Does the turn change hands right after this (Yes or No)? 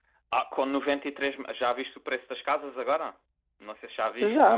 Yes